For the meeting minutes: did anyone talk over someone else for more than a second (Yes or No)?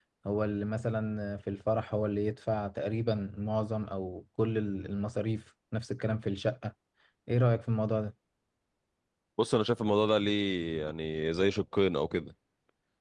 No